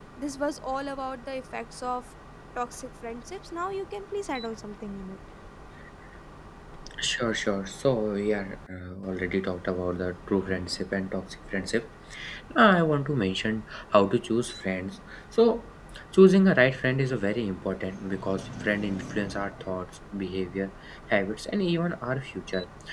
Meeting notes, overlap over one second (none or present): none